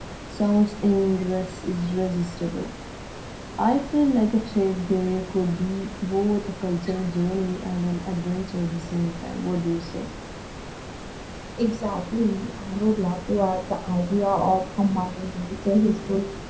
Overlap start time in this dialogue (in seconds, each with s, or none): none